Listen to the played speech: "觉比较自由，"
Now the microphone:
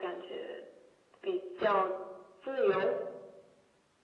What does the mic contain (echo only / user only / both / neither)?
echo only